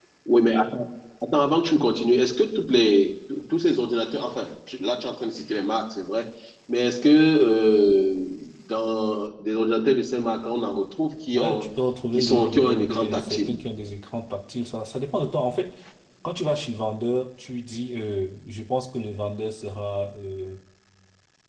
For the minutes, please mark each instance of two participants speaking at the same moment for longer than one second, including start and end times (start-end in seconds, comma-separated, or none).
12.2-13.5